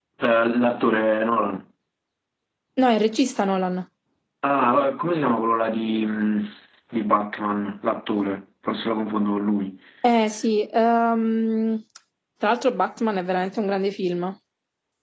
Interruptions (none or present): none